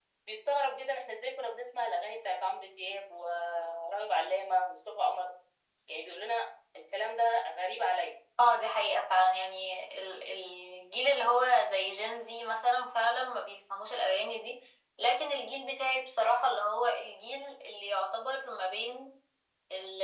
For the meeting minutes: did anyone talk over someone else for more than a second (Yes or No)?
No